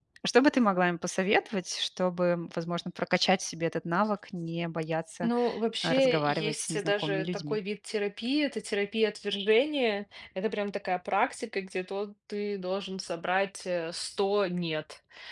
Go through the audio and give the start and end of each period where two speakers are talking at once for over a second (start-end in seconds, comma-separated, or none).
5.8-7.6